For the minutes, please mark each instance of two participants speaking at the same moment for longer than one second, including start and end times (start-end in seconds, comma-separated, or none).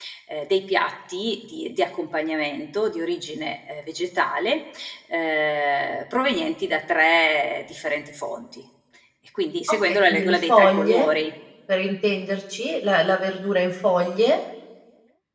9.7-11.1